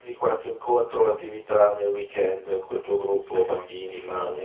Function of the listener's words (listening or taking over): taking over